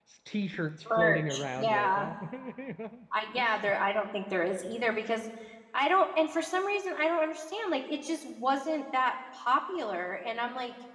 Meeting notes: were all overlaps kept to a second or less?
No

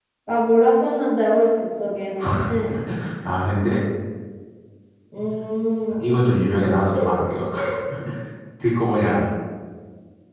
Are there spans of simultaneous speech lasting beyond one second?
No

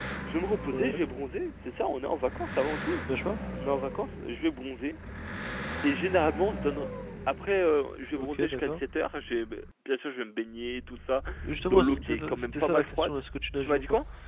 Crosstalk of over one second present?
Yes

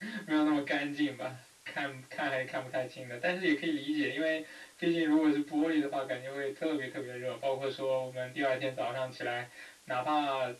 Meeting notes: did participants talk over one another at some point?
No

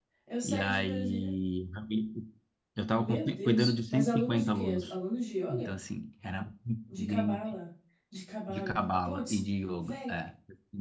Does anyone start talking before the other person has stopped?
Yes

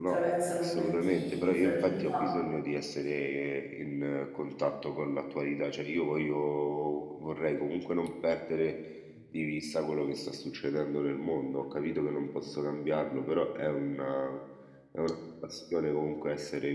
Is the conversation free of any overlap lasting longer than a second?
No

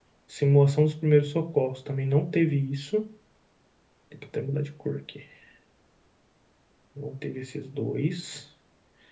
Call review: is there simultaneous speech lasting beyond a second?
No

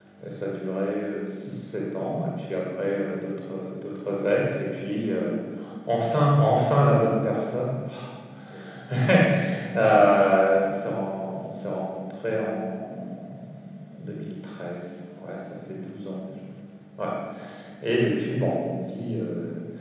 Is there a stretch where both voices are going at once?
No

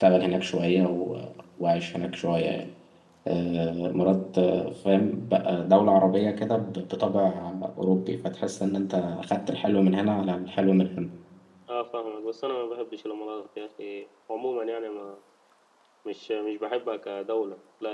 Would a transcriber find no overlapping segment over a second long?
Yes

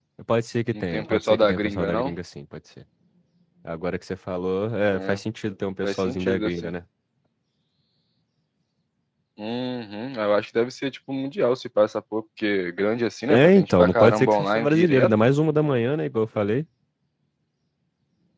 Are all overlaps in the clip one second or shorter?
No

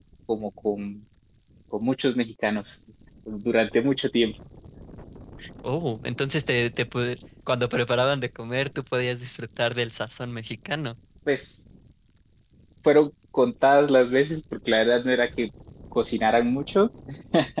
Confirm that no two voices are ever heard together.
Yes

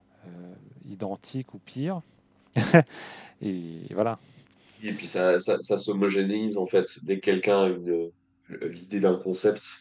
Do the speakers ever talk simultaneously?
No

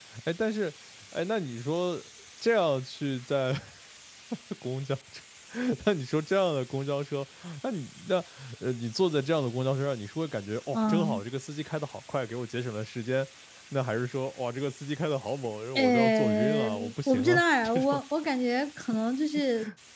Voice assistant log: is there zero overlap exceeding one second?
No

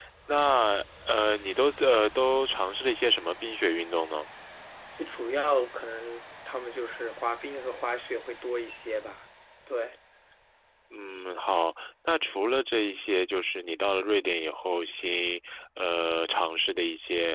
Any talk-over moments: No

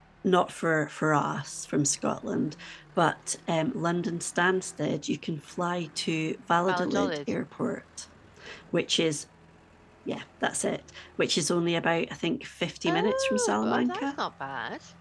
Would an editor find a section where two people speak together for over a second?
Yes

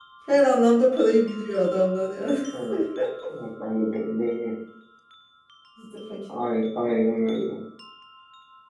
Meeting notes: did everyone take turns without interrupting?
Yes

